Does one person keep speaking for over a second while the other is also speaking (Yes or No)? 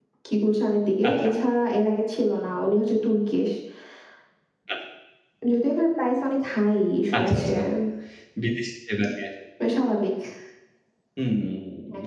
No